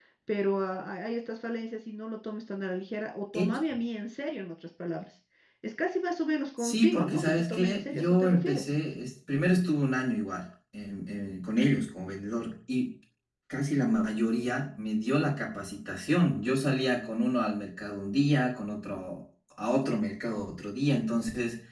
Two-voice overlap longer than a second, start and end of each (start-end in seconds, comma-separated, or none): 6.6-8.7